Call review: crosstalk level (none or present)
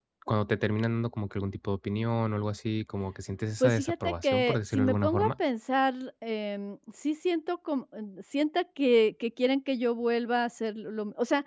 present